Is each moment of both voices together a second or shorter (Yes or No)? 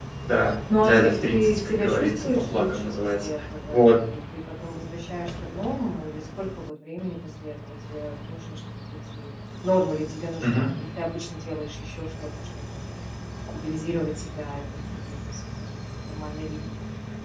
No